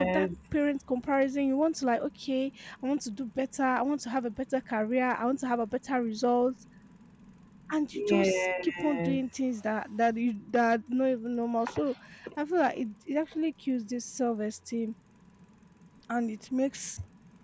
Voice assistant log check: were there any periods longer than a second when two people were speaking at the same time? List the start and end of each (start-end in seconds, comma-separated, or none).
7.9-9.2